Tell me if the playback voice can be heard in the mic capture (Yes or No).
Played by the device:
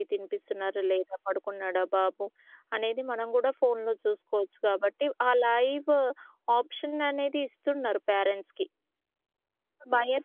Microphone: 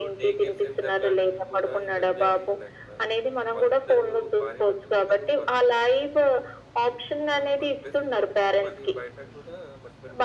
Yes